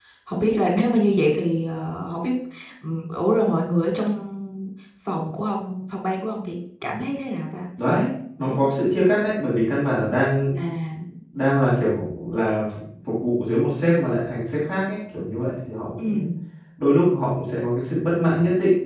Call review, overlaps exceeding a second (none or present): none